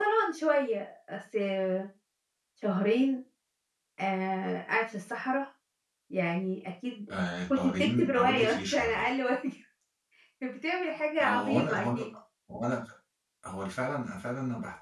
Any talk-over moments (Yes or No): Yes